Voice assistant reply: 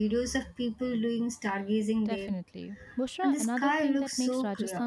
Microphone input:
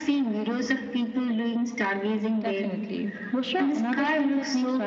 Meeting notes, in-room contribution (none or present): none